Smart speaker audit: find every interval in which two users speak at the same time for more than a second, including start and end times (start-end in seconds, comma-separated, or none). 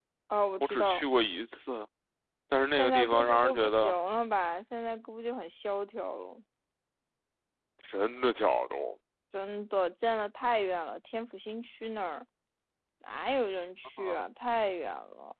2.7-3.9